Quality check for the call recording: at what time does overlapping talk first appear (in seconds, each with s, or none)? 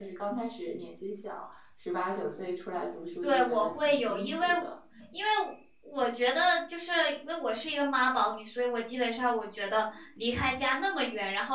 3.2 s